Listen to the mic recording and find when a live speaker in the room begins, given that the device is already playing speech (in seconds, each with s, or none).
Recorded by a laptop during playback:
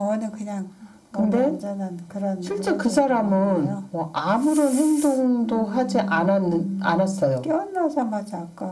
none